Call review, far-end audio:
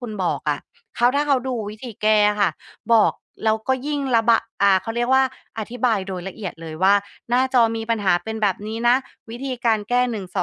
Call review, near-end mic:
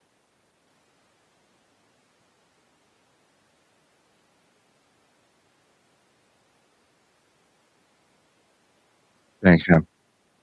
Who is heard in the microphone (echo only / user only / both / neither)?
user only